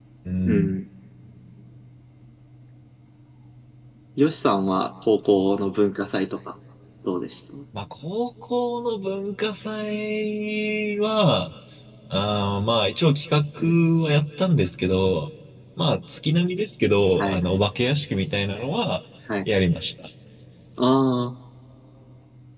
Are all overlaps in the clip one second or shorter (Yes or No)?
Yes